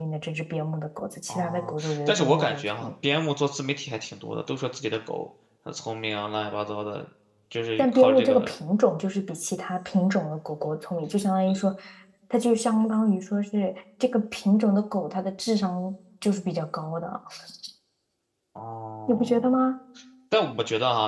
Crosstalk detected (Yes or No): Yes